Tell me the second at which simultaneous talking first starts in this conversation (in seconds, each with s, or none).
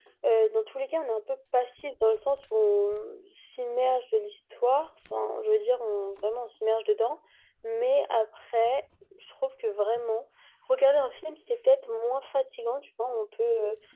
none